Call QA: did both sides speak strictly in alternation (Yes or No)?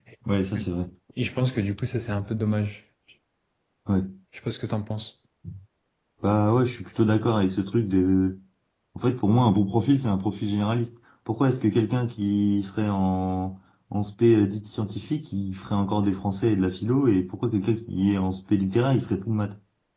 Yes